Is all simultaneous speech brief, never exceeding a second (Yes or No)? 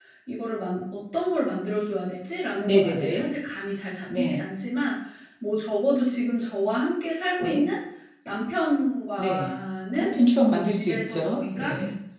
No